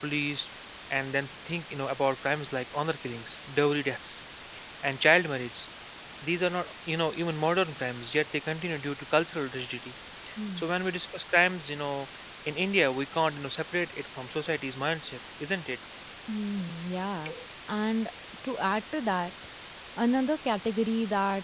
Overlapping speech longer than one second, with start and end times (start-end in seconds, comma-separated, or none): none